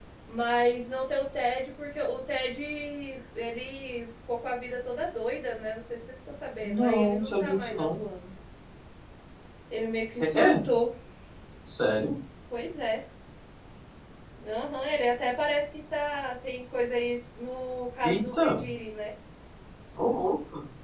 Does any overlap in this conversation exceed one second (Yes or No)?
Yes